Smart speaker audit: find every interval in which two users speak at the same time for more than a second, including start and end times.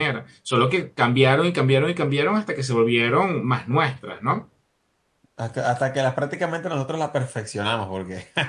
none

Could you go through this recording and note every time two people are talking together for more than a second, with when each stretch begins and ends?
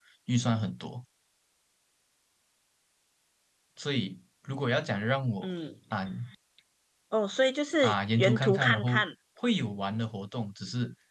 7.8-9.0

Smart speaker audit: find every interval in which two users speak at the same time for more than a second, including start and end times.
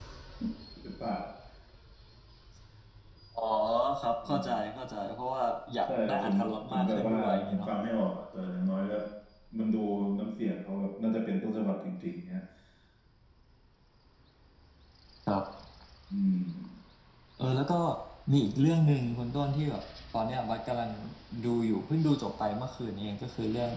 6.1-7.7

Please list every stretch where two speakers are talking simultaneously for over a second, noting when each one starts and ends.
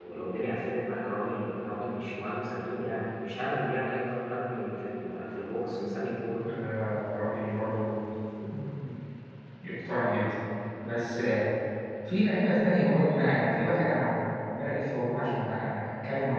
none

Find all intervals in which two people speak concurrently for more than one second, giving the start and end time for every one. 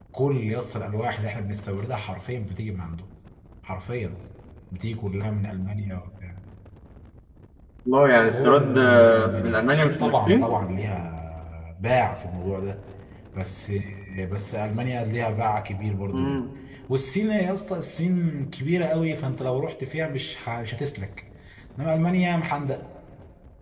8.3-10.5

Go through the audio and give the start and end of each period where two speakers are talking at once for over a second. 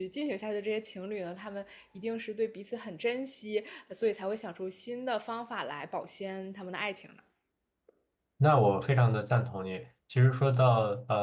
none

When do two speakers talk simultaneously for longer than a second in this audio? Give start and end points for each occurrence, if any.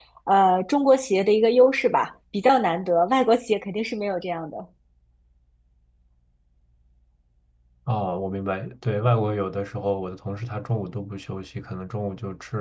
none

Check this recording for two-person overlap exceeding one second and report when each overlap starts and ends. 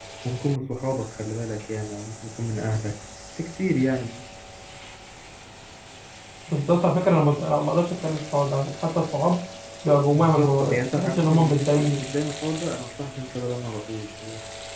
10.1-12.0

